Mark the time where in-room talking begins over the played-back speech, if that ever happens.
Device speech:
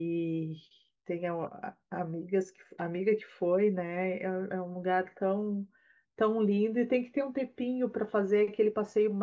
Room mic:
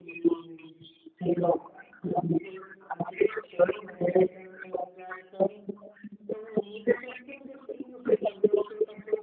none

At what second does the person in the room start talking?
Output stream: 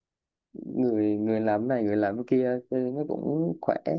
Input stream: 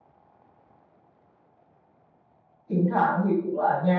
2.7 s

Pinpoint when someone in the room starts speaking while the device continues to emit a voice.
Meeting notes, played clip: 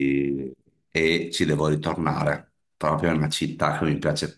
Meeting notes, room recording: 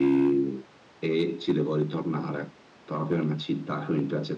none

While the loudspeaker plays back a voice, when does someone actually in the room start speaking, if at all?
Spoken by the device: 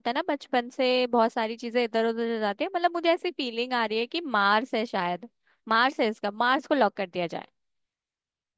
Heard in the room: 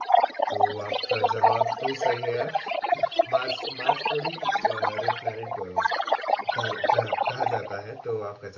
0.5 s

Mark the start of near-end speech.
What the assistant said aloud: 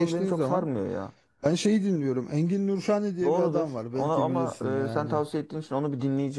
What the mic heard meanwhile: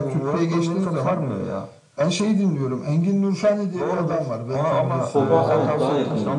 5.1 s

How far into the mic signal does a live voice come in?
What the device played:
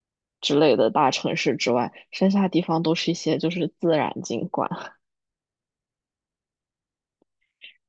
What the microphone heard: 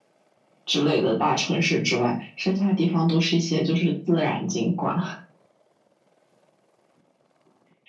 none

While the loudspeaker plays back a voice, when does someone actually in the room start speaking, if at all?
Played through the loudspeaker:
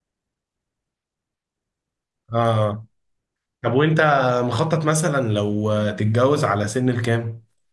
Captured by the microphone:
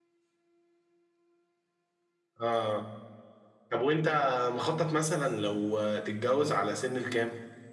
none

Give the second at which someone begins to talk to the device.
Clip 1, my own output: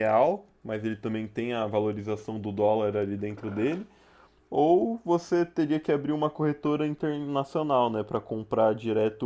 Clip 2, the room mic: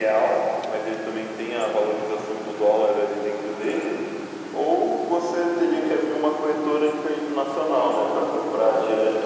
none

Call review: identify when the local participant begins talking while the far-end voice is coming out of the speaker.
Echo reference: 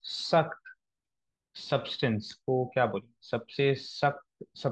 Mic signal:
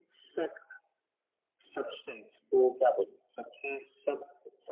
none

